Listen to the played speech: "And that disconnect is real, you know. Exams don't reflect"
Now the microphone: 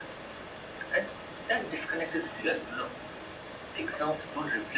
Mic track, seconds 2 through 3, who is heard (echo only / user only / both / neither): echo only